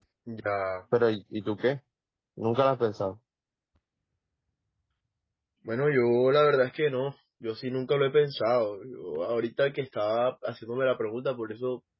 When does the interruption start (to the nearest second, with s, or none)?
none